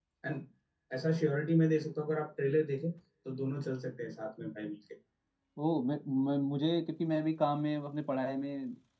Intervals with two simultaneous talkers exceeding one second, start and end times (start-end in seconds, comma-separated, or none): none